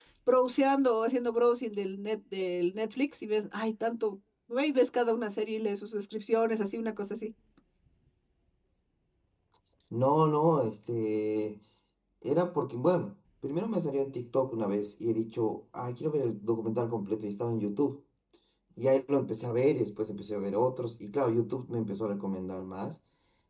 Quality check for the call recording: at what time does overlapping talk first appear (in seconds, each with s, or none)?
none